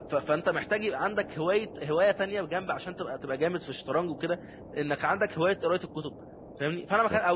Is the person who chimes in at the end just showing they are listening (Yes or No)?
Yes